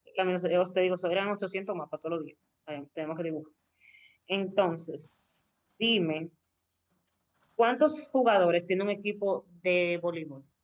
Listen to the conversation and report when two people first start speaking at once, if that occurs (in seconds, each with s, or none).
none